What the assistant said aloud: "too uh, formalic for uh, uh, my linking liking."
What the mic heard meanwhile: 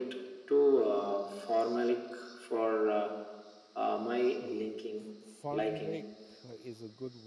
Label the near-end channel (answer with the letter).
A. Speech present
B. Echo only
A